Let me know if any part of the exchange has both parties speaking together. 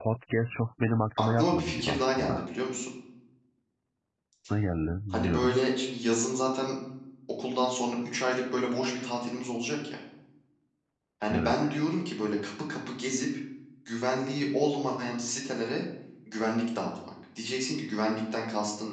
Yes, from 1.2 s

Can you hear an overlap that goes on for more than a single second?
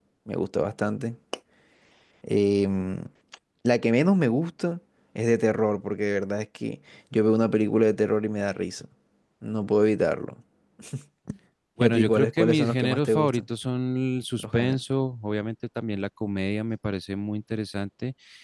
Yes, from 11.8 s

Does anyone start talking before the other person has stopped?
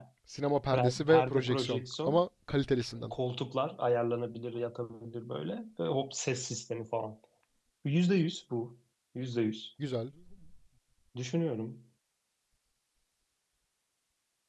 Yes, from 0.7 s

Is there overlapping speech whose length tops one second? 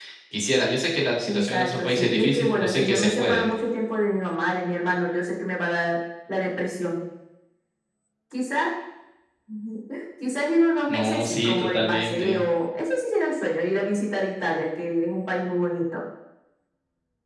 Yes, from 1.3 s

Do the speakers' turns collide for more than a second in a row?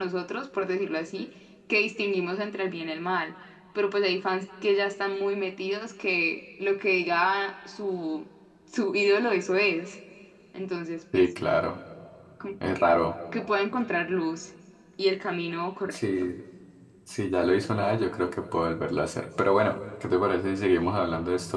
No

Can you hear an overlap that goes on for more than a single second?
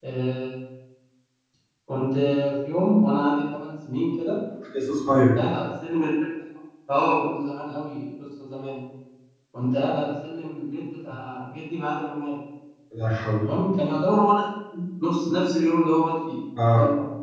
No

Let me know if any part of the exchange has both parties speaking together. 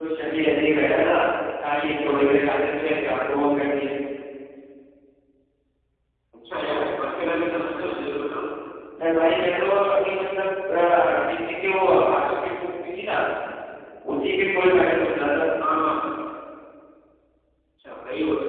No

